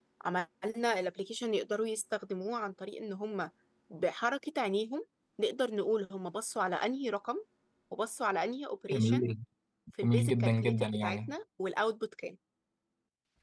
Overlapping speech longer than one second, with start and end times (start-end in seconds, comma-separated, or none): 10.0-11.3